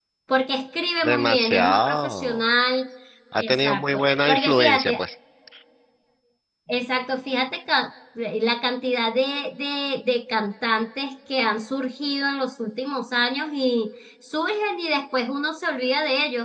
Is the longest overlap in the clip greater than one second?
Yes, from 1.1 s

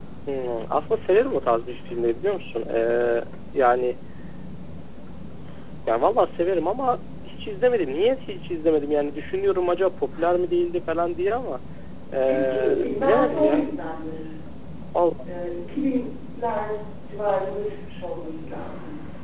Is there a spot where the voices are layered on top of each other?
Yes, from 12.3 s

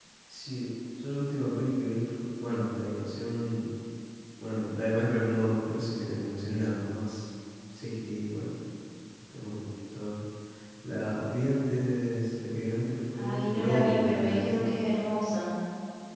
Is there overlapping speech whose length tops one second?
Yes, from 13.1 s

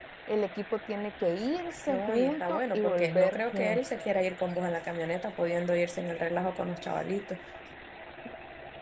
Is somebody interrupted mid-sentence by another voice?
Yes, from 1.9 s

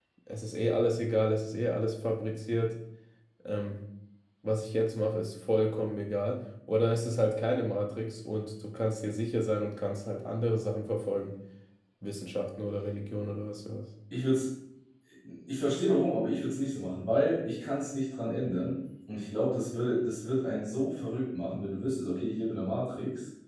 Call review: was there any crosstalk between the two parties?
No

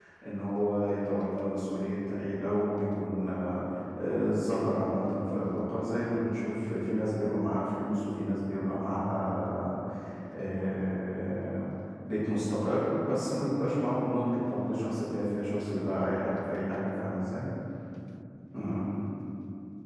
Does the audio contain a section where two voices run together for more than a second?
No

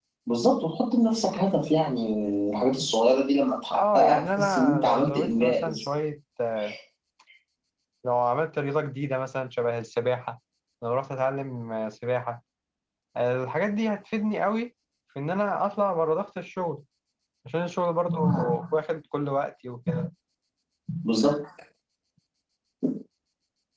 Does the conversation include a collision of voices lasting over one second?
Yes, from 3.7 s

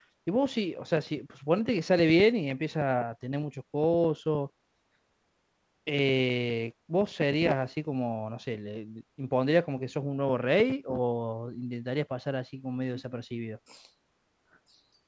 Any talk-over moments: No

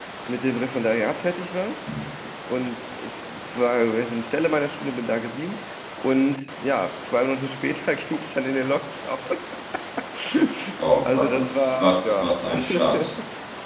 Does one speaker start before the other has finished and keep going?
Yes, from 11.1 s

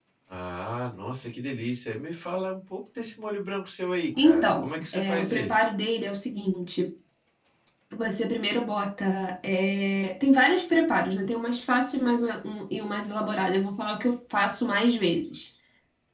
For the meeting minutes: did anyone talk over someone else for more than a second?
Yes, from 4.2 s

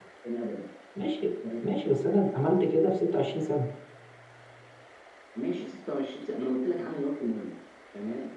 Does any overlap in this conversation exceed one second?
No

